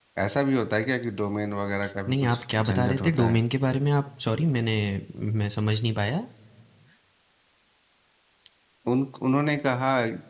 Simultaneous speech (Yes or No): Yes